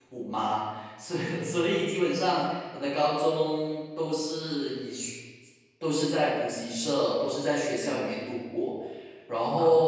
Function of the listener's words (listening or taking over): listening